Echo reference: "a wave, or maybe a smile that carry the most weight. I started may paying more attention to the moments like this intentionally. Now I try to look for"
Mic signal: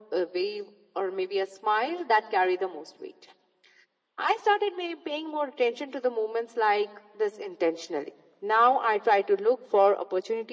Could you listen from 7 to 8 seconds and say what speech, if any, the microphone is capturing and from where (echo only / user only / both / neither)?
echo only